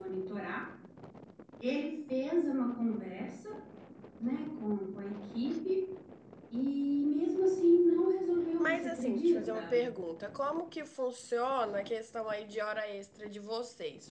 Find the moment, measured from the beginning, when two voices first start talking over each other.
9 s

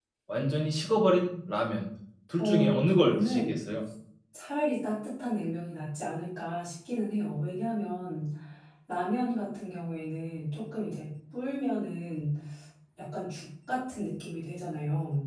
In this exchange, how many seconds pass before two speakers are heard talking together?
2 s

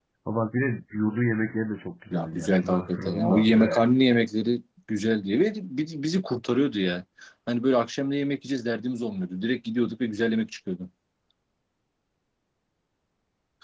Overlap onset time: 2 s

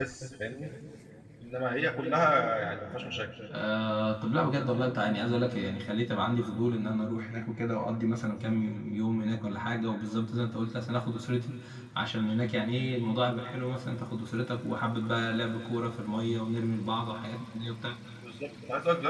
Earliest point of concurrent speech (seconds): none

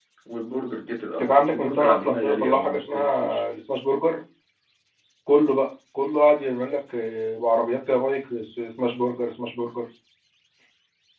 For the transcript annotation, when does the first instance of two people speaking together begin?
1 s

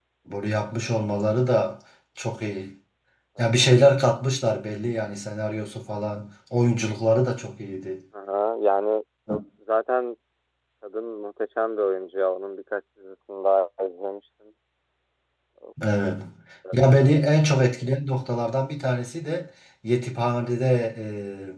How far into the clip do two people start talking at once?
none

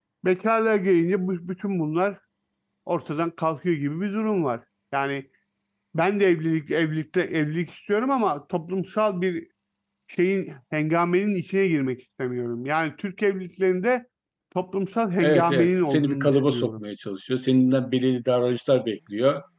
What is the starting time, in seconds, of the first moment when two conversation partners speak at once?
15 s

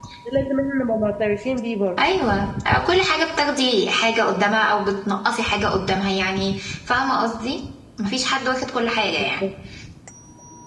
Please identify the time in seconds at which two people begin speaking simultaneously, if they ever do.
none

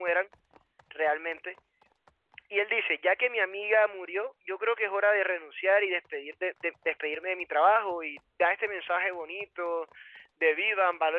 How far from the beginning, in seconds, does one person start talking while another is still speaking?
none

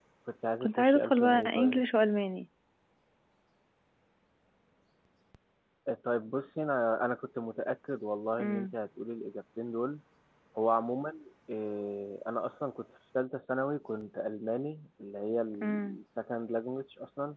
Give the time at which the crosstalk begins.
1 s

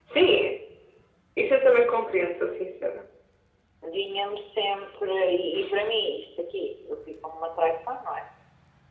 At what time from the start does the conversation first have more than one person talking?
none

